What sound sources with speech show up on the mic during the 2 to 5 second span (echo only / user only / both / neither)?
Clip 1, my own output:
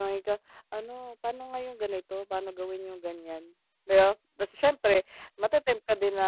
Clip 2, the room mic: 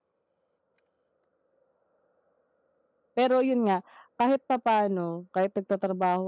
user only